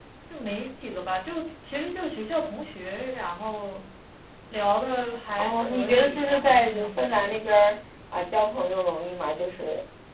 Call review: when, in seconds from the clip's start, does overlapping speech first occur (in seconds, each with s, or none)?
5.4 s